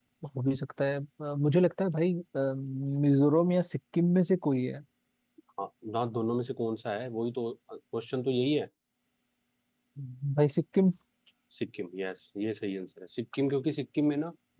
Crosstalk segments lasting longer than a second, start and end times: none

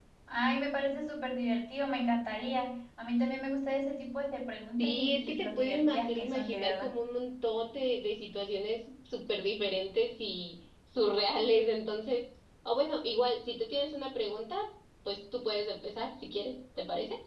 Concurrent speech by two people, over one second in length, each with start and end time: 4.8-6.9

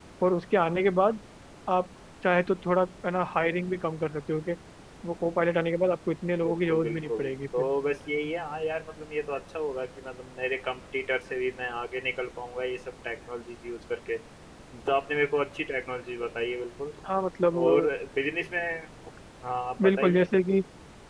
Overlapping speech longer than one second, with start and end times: 6.5-7.7

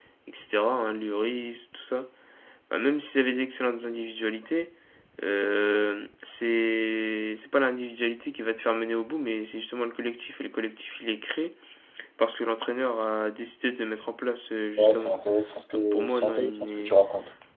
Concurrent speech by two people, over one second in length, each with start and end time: 15.7-16.9

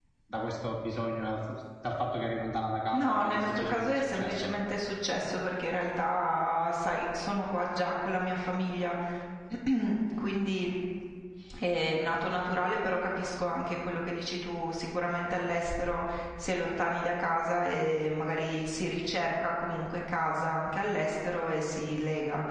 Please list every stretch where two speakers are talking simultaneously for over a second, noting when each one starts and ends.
2.9-4.5

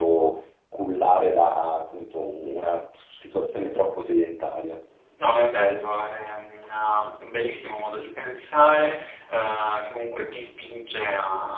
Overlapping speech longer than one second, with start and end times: none

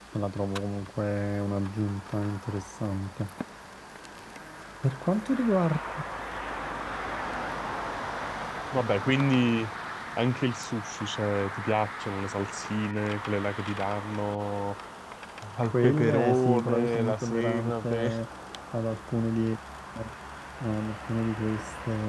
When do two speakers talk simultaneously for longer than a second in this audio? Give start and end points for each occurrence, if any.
15.6-18.1

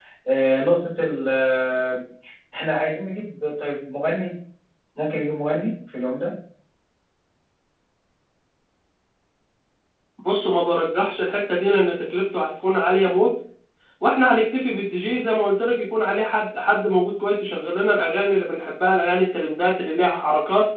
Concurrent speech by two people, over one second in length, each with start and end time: none

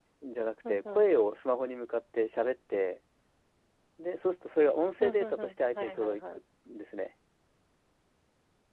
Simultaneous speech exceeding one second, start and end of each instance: 5.0-6.2

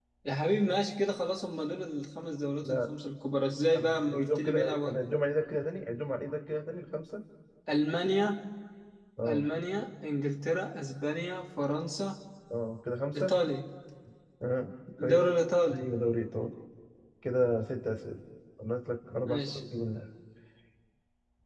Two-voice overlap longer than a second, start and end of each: 3.7-5.0

